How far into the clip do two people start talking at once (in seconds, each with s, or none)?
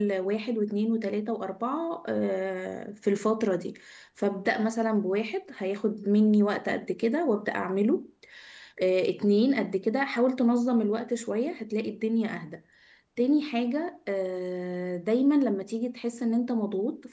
none